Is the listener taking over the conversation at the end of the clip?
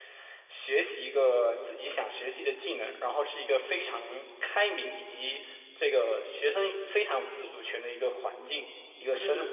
Yes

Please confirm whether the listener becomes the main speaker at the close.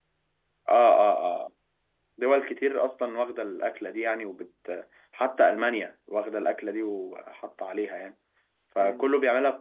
No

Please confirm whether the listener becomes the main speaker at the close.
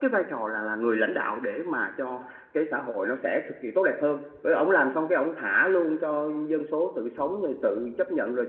No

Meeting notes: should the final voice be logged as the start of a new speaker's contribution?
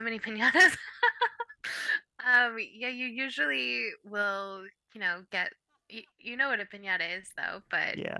Yes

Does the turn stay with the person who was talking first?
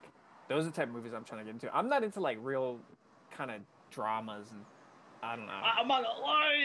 No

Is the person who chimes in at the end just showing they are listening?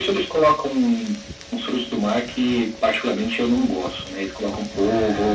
Yes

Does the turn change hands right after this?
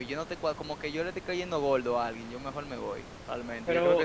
Yes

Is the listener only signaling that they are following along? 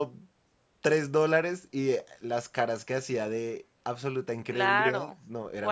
No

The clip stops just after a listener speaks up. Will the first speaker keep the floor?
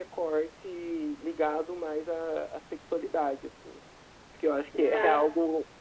Yes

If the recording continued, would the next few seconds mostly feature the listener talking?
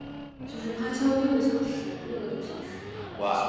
Yes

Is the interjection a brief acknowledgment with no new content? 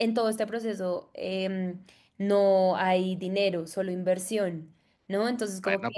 No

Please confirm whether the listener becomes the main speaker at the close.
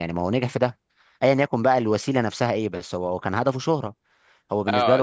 Yes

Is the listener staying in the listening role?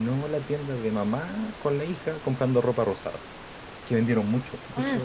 No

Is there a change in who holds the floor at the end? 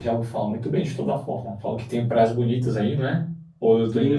Yes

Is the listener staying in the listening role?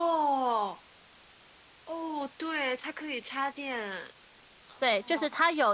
No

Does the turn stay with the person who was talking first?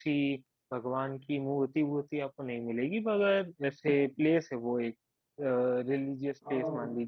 No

